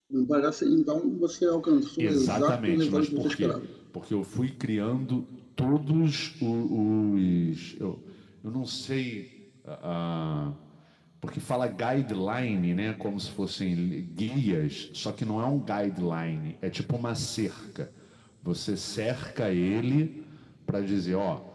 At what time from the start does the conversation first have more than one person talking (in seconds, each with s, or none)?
2.0 s